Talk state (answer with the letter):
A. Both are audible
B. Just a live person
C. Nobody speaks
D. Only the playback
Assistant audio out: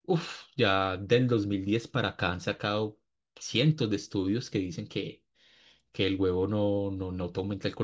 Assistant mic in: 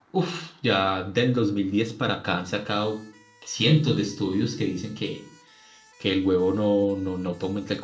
D